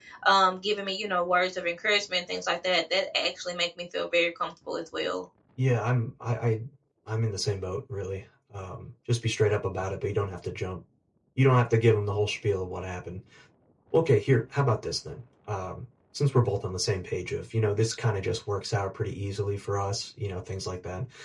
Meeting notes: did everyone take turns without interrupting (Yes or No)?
Yes